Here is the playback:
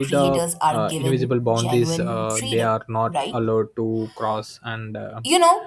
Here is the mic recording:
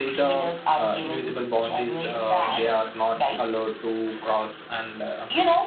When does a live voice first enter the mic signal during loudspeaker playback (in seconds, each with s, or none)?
2.0 s